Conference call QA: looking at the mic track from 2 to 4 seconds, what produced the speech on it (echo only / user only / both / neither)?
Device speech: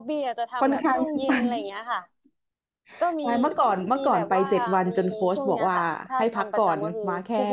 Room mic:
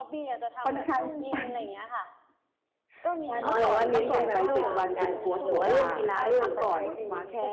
both